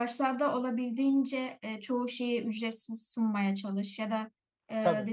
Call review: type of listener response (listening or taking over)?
listening